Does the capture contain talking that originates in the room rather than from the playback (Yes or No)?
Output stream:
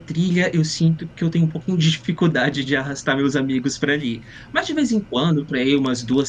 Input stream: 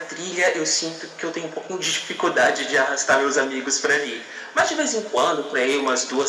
No